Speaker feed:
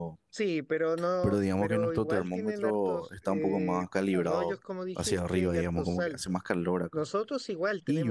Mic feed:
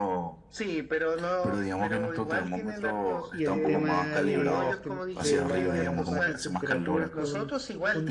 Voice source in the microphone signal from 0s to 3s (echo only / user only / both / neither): echo only